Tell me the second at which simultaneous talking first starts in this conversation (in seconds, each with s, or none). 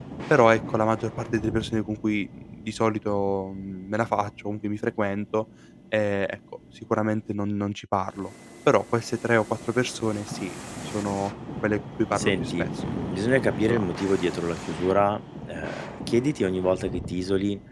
12.2 s